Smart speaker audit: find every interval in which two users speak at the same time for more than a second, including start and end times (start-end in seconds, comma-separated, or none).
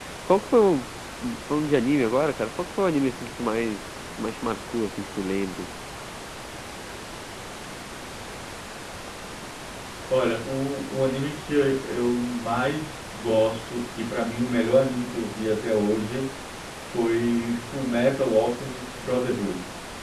none